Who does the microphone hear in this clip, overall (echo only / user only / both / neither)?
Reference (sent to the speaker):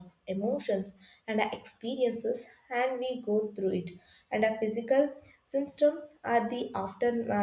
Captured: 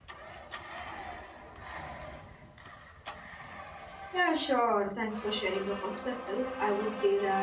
user only